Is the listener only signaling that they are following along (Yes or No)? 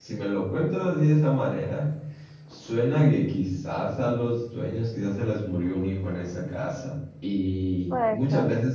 Yes